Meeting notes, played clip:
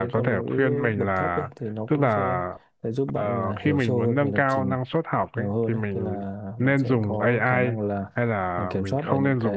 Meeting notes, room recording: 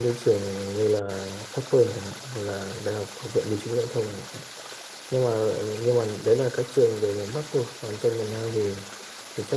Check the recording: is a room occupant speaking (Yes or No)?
Yes